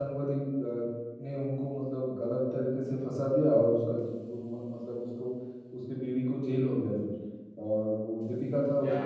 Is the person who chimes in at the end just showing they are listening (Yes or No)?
Yes